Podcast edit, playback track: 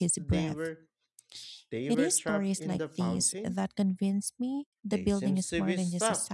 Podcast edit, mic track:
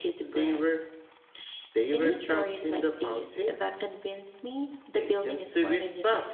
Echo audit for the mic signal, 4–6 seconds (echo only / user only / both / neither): echo only